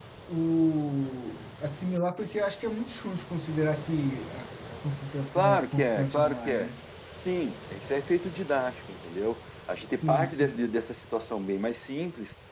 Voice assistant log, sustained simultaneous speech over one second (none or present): present